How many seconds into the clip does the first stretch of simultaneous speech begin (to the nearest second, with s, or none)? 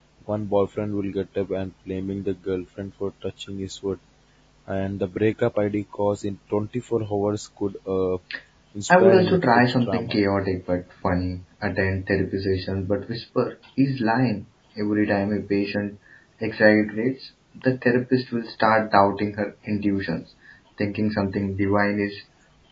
9 s